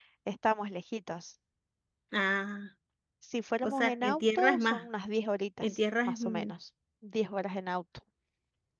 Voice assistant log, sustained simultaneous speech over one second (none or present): present